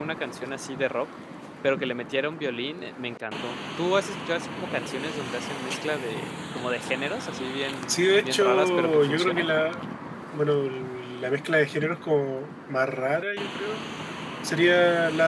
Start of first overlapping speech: 7.9 s

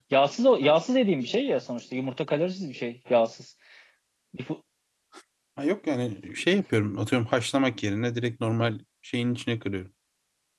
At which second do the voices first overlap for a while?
none

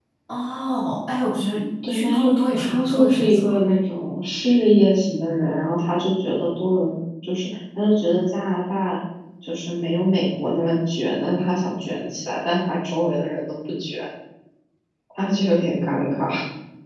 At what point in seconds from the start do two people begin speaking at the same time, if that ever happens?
1.8 s

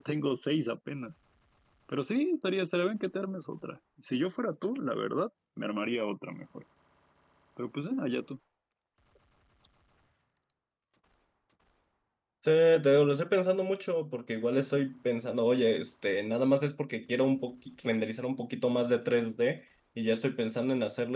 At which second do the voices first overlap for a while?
none

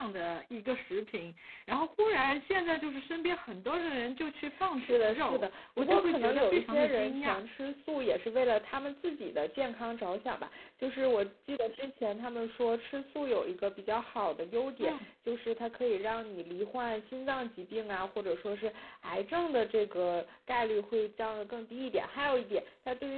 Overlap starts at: 4.8 s

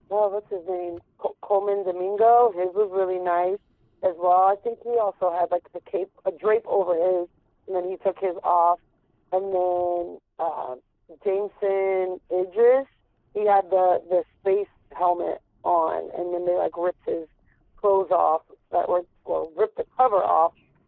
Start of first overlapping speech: none

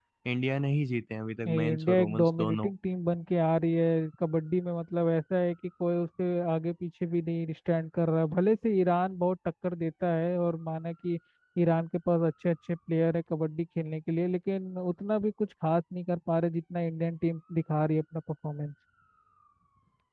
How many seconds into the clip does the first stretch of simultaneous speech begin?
1.4 s

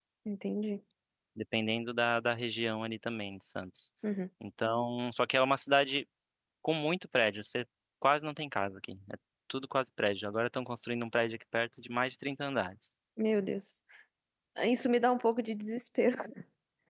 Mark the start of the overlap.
none

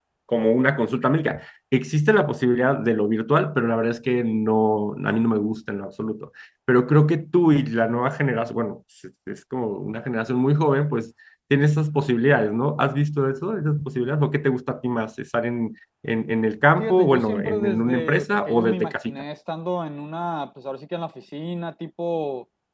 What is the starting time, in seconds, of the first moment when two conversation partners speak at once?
16.8 s

